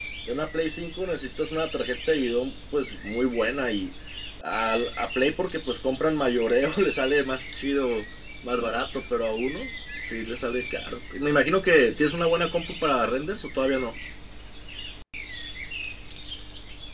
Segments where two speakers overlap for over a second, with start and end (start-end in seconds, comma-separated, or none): none